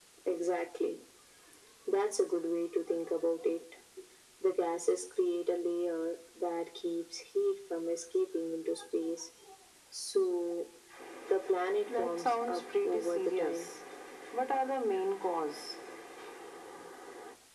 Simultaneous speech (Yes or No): Yes